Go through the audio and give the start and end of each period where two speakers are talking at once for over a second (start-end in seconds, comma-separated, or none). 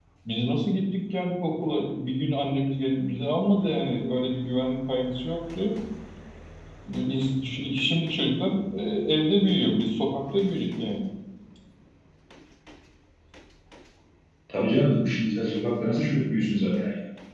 none